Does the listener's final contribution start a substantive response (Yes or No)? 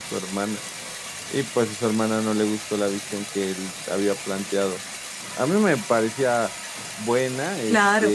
No